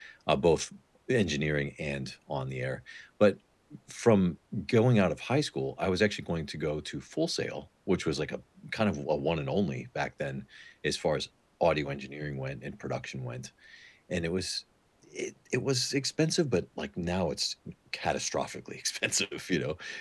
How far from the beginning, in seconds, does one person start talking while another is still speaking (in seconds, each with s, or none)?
none